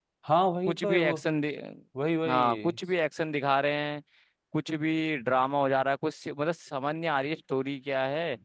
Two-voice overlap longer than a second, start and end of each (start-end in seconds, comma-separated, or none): none